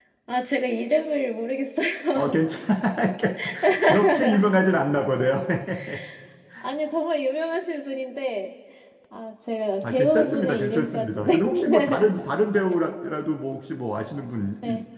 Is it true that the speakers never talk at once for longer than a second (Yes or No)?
No